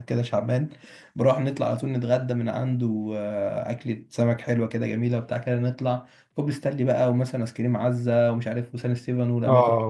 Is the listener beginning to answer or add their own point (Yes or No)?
Yes